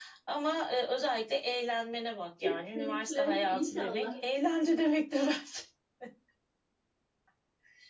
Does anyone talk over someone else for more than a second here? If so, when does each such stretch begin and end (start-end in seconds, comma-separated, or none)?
2.4-4.2